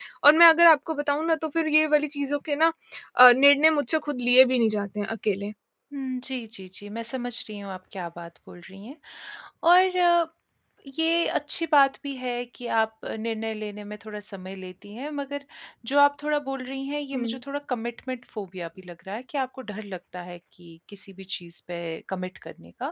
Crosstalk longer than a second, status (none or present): none